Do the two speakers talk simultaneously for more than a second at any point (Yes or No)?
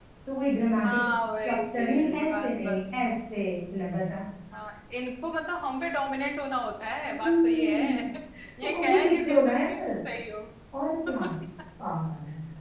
Yes